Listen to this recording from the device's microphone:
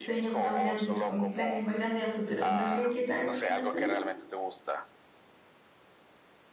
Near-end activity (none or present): present